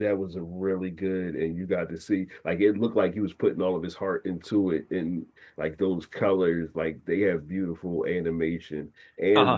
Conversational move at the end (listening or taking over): listening